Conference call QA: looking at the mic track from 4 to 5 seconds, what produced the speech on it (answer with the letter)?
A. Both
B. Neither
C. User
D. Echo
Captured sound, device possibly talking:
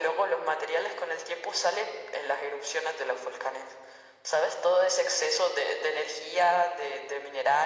D